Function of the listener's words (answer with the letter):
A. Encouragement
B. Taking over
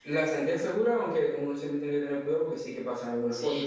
B